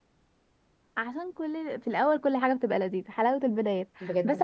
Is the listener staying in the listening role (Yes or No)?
Yes